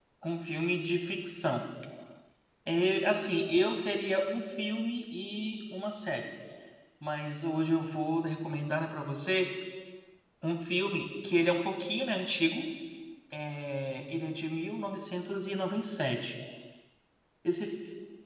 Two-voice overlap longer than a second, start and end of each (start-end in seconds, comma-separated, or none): none